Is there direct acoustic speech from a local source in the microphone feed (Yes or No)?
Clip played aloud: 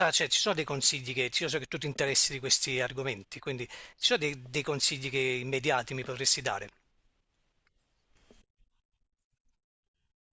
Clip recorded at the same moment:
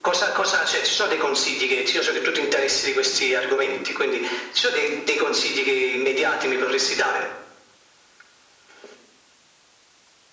No